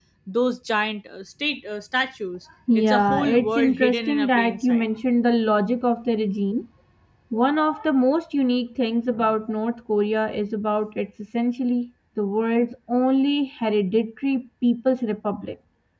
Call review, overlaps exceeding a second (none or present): present